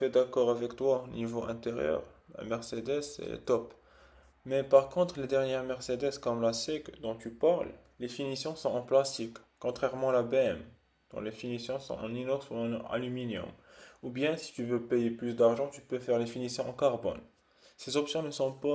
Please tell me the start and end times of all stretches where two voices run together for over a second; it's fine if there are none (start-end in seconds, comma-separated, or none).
none